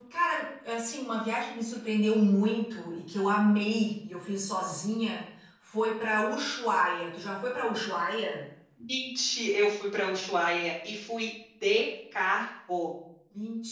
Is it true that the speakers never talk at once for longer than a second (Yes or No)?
Yes